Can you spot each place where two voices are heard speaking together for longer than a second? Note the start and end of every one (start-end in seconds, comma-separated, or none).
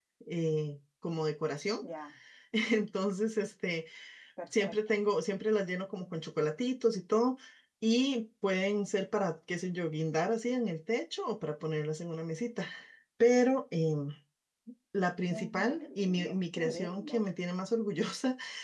15.3-17.2